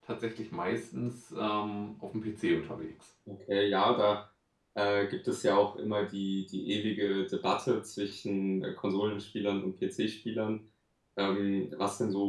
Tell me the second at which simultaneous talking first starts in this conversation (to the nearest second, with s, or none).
none